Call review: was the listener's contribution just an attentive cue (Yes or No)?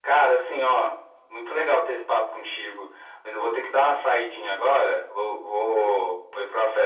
Yes